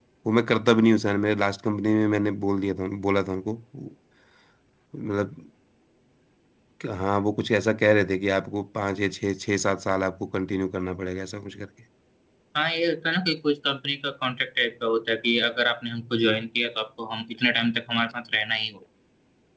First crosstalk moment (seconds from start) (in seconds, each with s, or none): none